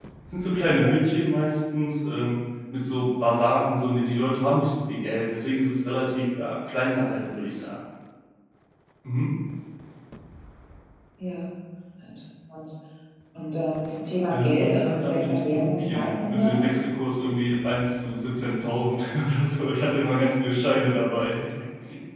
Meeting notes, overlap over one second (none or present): present